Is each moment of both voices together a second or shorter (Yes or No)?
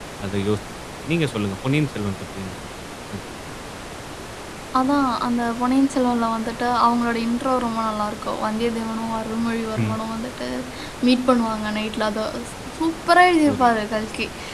Yes